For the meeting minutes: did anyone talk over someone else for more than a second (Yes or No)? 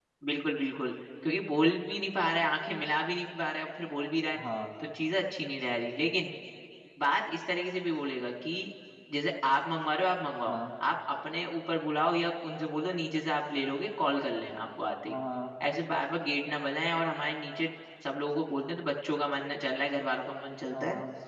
No